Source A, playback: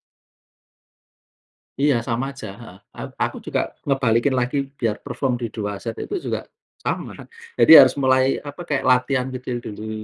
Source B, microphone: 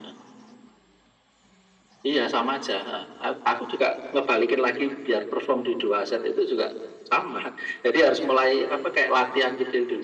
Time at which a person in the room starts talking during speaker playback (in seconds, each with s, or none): none